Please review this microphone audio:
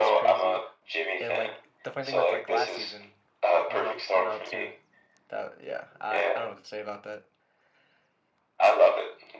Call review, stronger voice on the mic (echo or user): echo